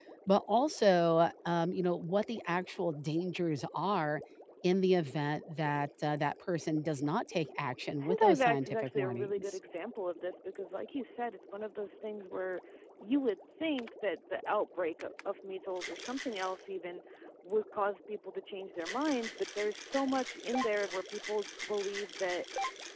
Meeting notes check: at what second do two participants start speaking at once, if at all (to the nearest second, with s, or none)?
8 s